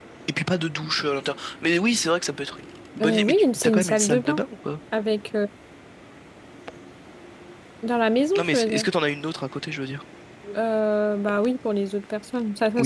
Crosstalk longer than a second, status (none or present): present